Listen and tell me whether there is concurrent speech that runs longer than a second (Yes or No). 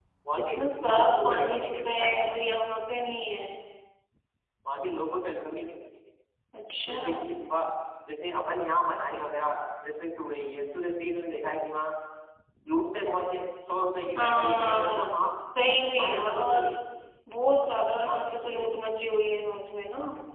Yes